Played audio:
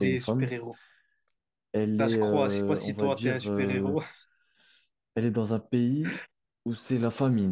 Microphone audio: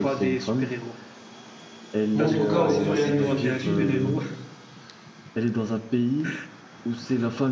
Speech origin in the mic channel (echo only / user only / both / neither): both